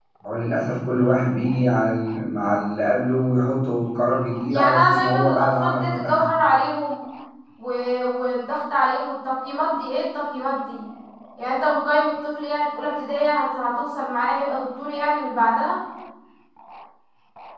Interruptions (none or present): present